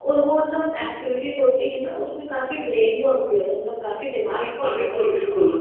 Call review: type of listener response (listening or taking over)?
taking over